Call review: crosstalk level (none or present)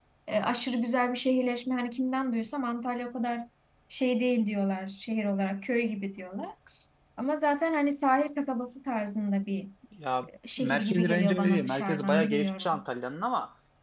present